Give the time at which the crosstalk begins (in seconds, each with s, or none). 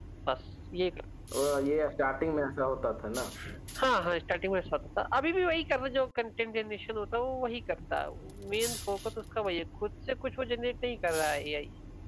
none